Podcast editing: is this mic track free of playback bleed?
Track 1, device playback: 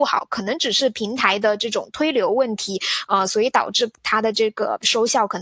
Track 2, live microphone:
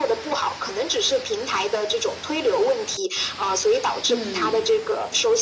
No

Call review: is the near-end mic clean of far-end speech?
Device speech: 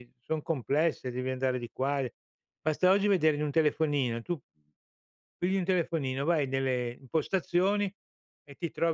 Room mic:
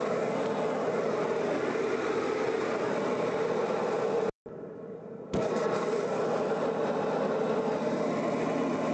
Yes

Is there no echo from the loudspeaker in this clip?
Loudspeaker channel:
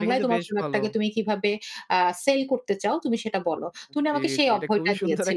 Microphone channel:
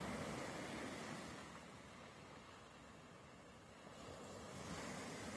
Yes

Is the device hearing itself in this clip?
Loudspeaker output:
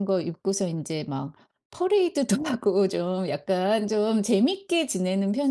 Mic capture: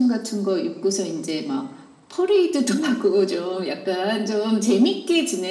Yes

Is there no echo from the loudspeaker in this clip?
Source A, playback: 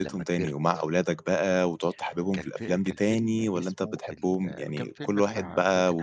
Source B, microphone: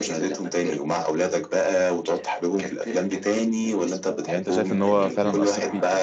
No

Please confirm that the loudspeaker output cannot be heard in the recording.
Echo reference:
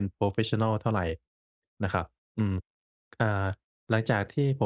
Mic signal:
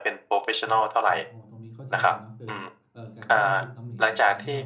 No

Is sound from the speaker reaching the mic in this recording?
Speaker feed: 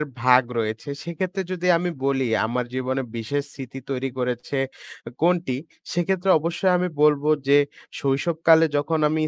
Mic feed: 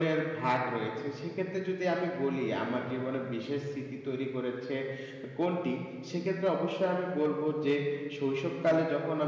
Yes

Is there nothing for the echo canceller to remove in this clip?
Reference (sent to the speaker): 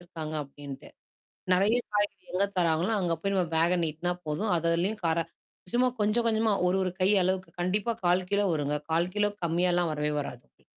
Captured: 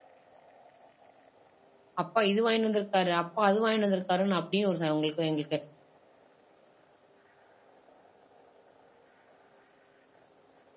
Yes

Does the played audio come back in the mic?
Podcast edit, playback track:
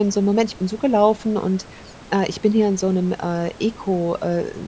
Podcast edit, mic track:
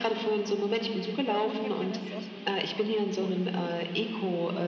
Yes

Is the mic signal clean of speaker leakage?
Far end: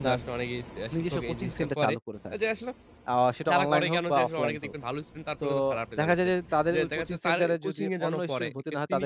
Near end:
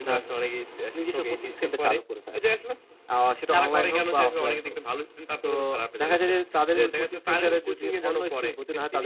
No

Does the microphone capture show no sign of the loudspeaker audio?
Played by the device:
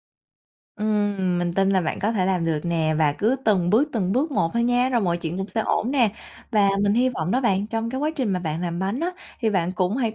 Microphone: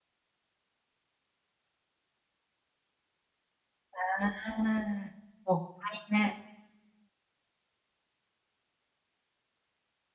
Yes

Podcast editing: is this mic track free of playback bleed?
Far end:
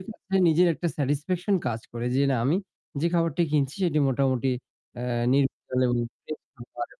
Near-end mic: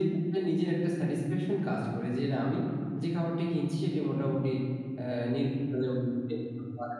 No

